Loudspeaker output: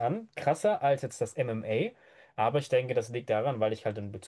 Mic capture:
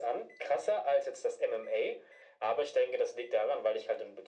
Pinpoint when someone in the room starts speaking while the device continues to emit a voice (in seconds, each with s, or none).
none